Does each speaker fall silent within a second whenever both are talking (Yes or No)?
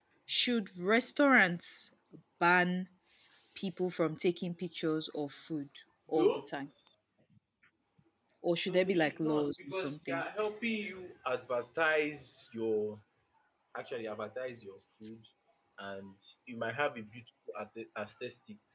No